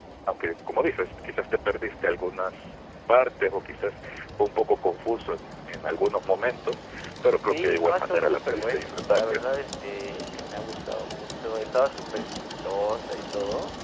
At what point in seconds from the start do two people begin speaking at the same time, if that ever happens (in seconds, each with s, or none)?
7.5 s